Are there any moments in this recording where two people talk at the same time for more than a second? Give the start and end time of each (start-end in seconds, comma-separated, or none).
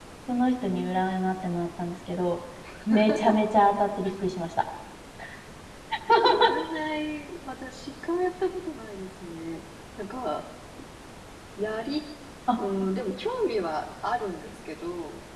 none